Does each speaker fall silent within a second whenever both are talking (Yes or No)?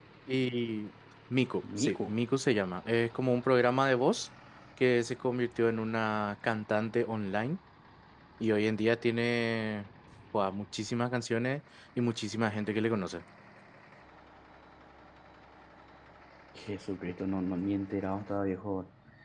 Yes